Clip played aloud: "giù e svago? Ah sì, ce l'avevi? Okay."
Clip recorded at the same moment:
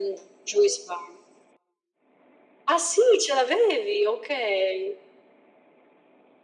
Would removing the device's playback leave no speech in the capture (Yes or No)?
Yes